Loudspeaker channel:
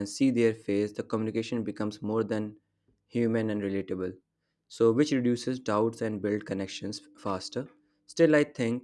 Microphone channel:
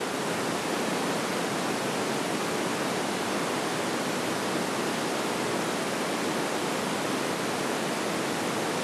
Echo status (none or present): none